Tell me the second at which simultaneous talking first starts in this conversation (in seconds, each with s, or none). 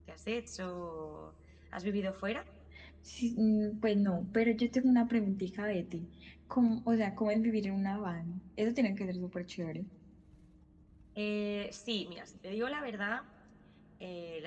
none